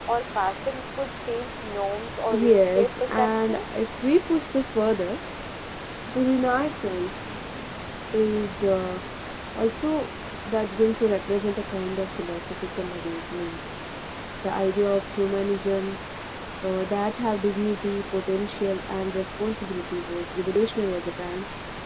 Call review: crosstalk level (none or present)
present